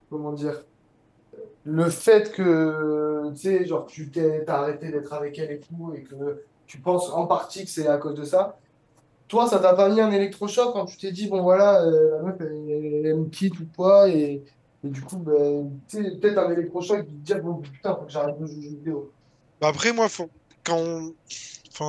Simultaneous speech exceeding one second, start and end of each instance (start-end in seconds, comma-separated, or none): none